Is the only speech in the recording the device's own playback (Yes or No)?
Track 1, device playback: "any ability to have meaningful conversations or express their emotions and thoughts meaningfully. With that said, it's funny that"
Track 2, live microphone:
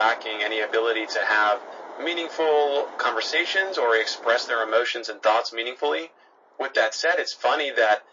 Yes